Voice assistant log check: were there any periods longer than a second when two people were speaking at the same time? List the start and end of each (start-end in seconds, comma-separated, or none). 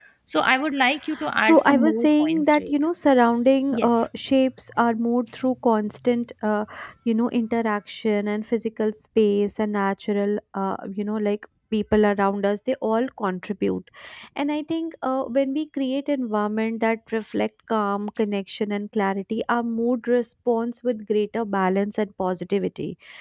1.5-2.7